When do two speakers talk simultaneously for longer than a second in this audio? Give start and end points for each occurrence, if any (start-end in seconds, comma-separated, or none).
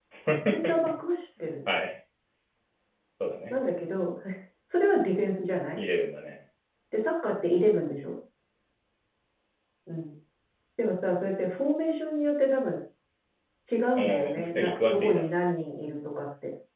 14.0-15.3